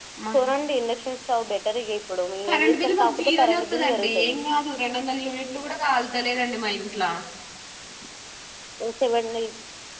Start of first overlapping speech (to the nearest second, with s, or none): 2 s